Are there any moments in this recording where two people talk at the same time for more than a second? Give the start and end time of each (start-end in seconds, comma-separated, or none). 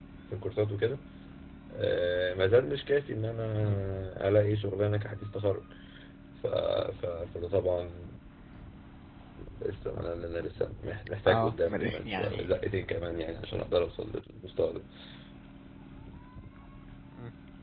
11.3-12.5